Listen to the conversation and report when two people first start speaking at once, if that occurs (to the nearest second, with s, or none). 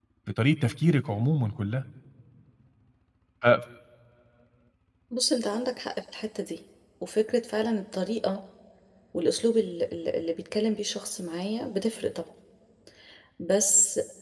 none